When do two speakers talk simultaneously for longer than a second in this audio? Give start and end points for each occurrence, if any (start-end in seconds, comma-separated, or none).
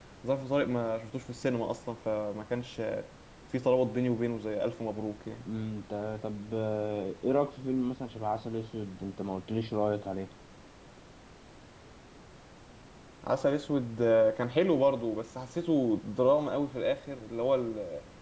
none